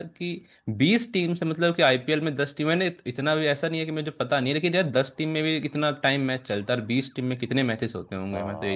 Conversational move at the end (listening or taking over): taking over